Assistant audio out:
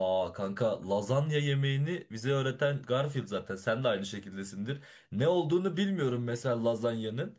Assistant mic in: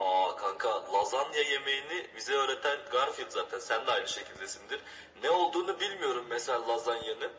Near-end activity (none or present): none